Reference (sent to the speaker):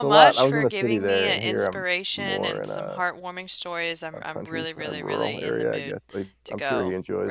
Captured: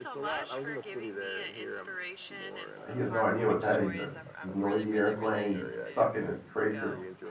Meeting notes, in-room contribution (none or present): present